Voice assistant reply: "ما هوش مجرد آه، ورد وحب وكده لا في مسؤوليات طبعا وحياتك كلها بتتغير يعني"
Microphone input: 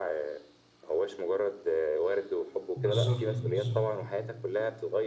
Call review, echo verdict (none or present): present